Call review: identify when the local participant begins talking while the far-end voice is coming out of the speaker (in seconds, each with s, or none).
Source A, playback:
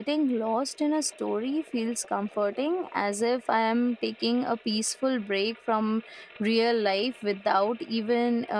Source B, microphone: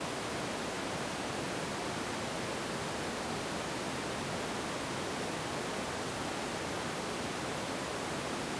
none